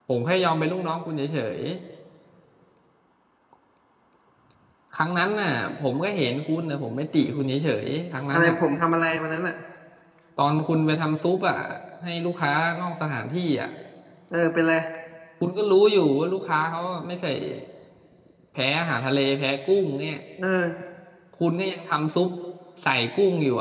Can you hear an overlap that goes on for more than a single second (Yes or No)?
No